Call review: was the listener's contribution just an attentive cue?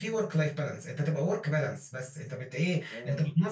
Yes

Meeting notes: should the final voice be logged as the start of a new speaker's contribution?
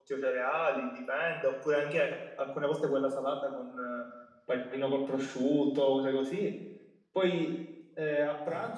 No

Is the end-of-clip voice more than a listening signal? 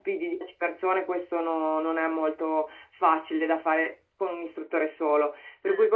No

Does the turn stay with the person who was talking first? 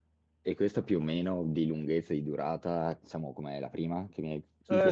No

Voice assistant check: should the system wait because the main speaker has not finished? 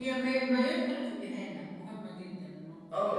No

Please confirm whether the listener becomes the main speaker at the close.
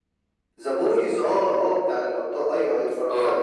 Yes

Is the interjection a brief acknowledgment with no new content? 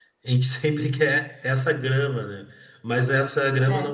Yes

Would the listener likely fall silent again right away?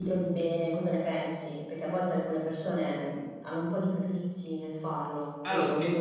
No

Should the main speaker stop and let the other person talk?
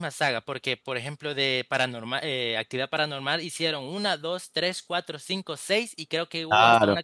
Yes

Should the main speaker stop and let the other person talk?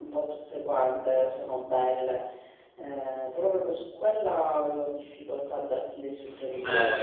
Yes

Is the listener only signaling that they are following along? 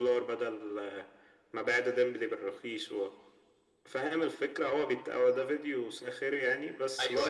Yes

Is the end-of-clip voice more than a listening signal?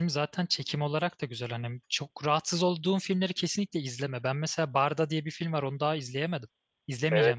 Yes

